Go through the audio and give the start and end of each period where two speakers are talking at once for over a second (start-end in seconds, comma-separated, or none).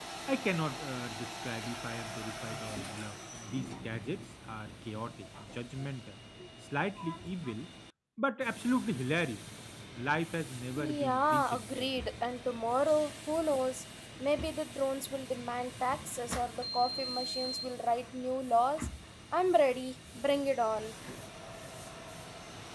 10.8-12.1